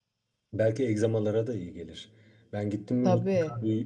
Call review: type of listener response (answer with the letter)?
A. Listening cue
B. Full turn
A